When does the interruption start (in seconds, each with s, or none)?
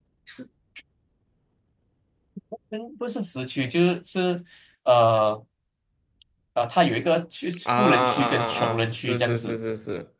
7.7 s